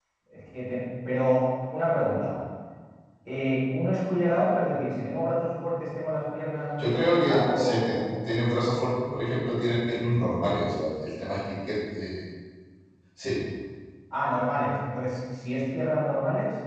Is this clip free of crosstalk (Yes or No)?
No